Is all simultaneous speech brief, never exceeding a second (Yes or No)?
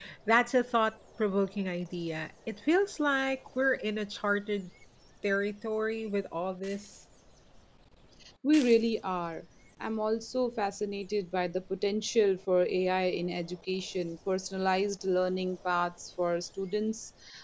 Yes